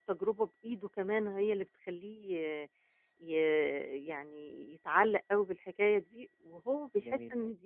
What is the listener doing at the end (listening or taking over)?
listening